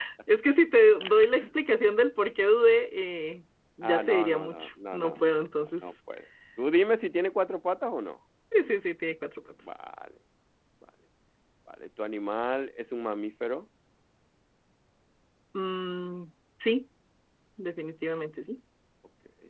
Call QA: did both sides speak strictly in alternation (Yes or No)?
No